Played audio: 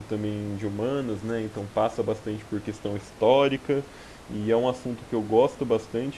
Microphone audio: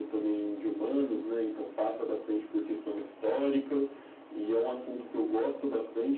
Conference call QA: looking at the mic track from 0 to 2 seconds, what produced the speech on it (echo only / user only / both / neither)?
echo only